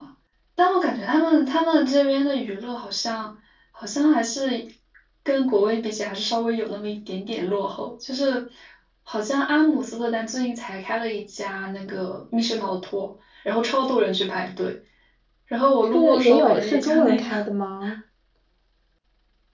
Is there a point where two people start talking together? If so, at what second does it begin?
15.9 s

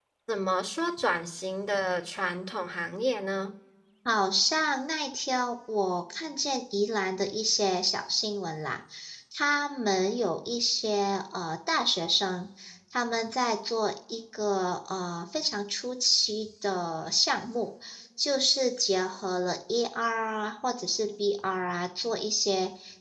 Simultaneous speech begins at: none

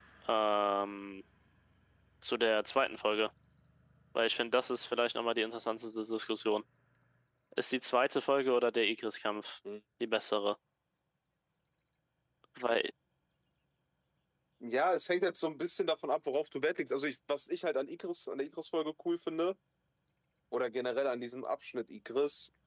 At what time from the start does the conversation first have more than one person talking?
none

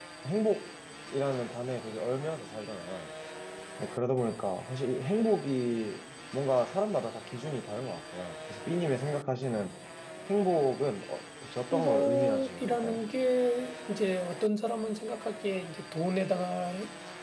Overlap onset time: 11.7 s

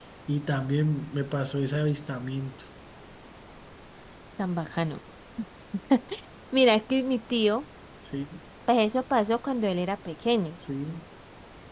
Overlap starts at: none

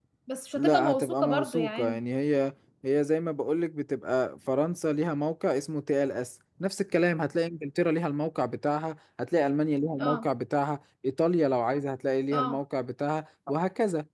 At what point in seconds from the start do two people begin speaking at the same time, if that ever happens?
0.6 s

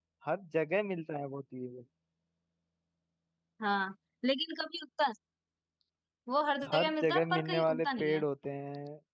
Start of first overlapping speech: 6.7 s

